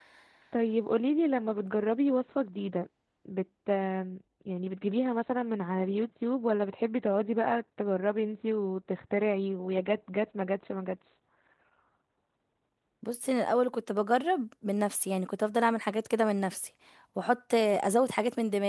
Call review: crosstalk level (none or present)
none